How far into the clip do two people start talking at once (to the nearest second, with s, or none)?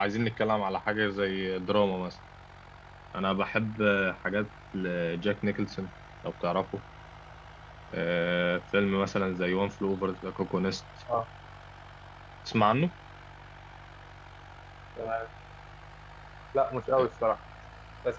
none